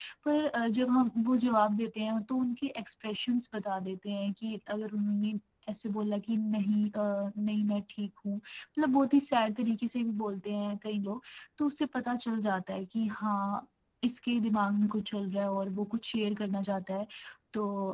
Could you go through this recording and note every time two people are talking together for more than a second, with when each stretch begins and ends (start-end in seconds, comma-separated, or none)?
none